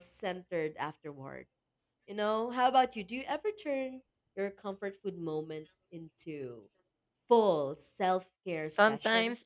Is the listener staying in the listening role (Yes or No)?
No